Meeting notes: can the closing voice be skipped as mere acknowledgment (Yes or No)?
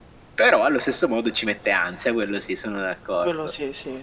No